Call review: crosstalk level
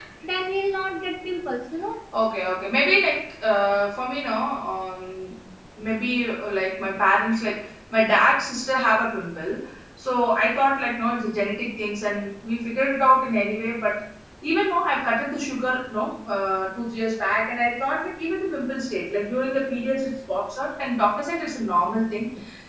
none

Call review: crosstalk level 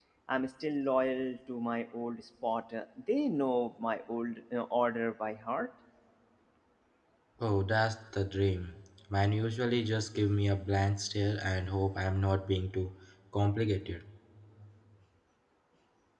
none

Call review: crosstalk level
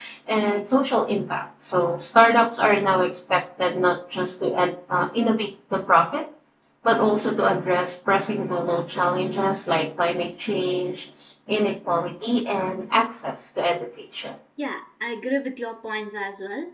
none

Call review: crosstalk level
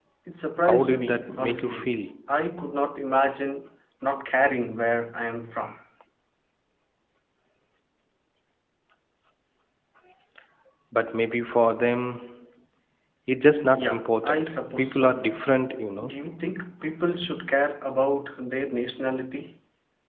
present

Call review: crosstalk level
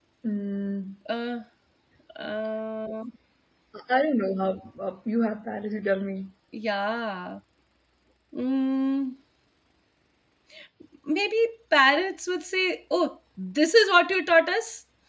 none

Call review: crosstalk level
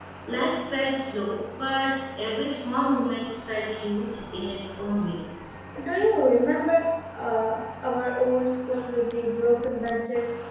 none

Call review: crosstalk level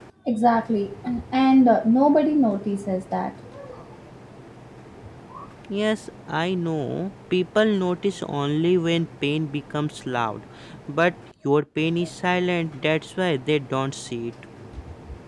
none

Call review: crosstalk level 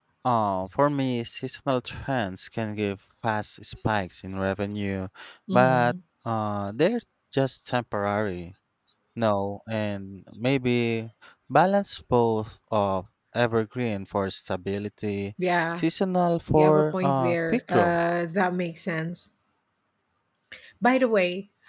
present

